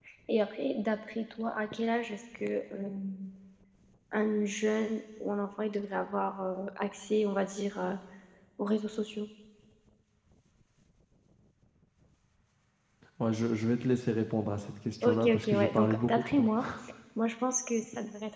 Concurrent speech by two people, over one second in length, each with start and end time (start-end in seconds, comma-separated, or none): 15.0-16.5